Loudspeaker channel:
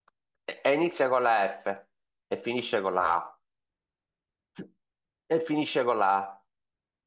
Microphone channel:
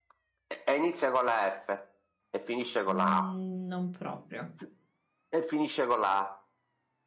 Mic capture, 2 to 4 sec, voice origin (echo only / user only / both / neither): both